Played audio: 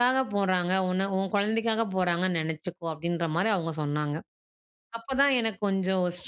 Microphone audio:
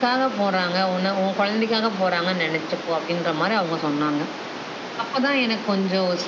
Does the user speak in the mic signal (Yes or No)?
No